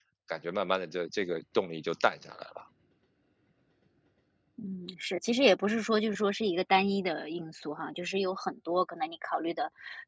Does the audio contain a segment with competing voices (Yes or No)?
No